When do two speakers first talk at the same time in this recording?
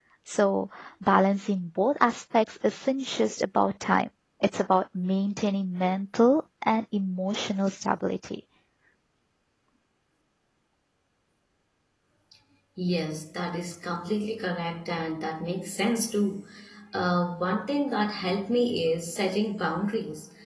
none

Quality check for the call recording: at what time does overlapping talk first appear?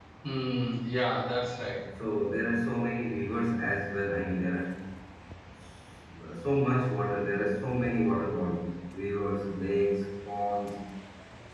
none

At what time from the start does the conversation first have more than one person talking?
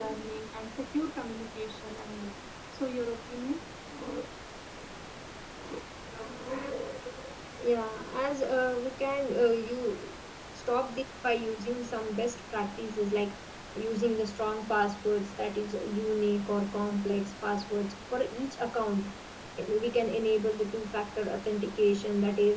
none

